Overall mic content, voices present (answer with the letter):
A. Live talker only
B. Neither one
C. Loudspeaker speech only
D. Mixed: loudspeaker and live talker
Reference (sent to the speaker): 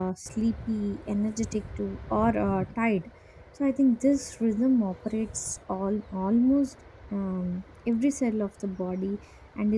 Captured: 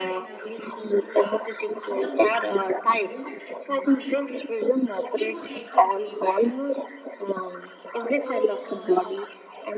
D